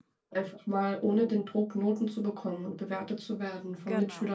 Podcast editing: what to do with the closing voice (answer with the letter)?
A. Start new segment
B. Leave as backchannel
B